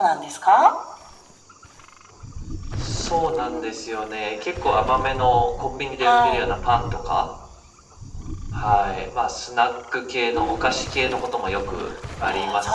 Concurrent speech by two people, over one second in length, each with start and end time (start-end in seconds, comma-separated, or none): none